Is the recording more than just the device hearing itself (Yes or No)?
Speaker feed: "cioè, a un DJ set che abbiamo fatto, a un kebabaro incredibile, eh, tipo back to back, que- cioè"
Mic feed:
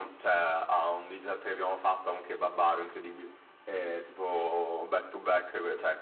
No